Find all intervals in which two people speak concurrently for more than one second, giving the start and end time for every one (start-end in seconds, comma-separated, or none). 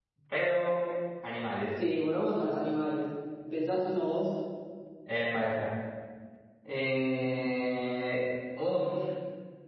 none